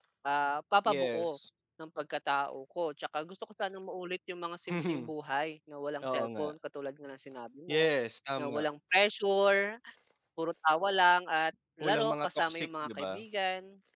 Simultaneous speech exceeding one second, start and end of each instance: 11.8-13.2

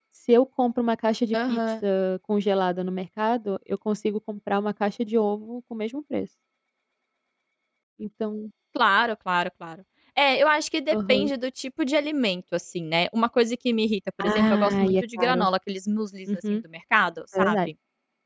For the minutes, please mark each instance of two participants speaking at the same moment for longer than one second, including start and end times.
14.3-15.5

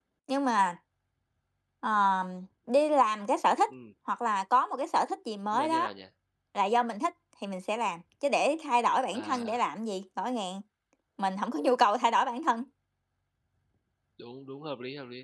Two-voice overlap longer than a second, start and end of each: none

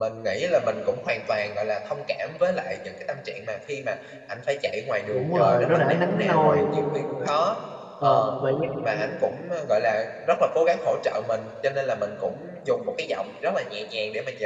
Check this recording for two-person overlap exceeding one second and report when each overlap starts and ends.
5.1-6.6

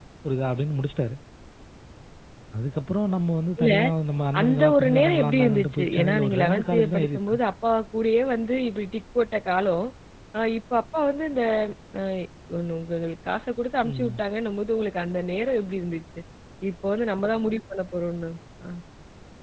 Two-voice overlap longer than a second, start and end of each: 4.4-7.4

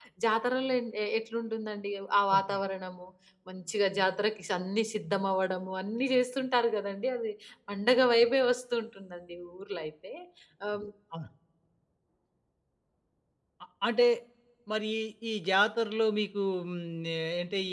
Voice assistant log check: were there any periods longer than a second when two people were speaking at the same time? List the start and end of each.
none

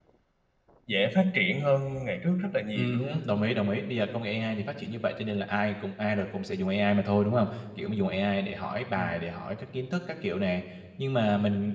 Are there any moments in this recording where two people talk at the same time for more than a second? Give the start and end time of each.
none

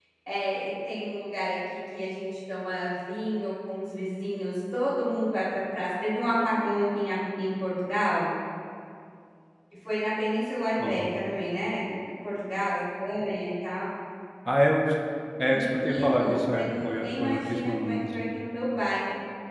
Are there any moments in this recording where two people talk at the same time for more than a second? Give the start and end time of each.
15.5-18.2

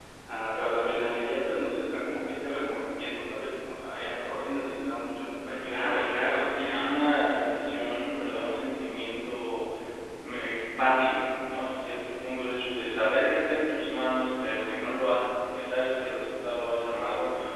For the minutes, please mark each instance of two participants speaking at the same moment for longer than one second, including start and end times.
5.6-7.2

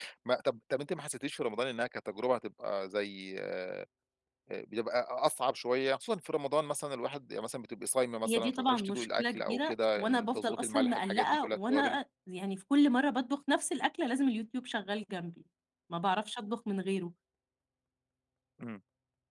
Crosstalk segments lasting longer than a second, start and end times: 8.3-12.0

